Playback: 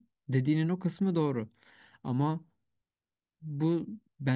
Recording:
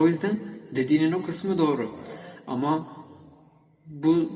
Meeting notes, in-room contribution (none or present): none